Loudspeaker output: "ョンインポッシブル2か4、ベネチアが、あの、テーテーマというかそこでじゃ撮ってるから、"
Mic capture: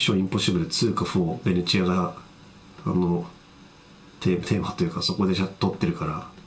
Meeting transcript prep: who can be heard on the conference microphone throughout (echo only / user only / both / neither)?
echo only